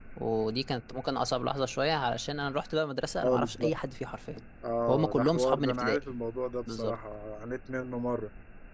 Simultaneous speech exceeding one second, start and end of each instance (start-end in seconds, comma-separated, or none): 4.9-6.1